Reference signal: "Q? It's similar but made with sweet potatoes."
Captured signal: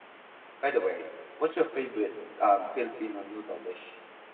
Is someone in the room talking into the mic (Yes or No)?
Yes